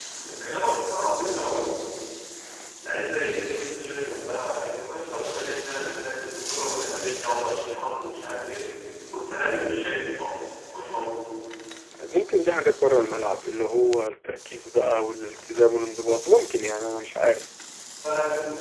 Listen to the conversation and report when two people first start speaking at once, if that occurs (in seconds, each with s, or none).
none